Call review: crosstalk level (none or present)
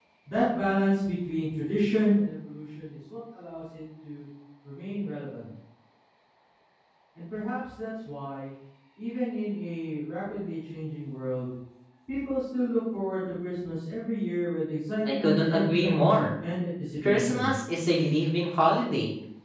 present